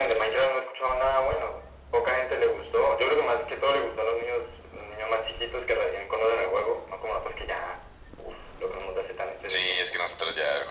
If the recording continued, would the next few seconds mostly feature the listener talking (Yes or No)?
Yes